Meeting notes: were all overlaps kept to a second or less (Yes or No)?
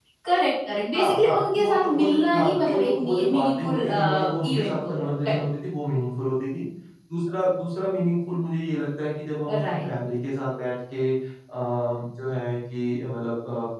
No